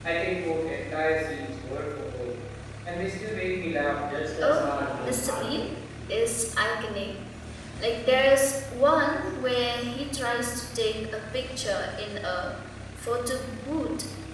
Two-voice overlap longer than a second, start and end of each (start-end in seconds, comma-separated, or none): 4.4-5.6